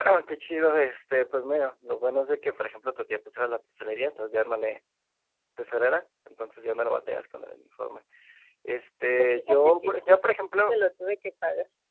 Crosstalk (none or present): present